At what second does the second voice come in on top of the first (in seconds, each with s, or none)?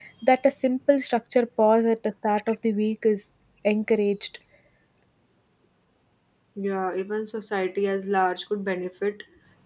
none